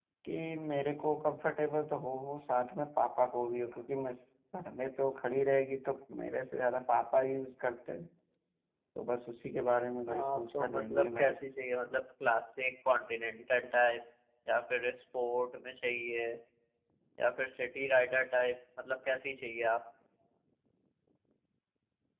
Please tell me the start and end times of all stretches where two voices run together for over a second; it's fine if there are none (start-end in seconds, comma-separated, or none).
10.1-11.3